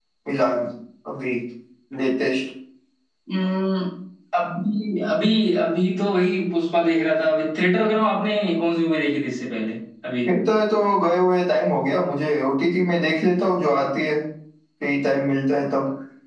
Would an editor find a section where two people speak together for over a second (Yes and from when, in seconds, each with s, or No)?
No